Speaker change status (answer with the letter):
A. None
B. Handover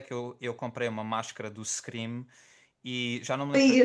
A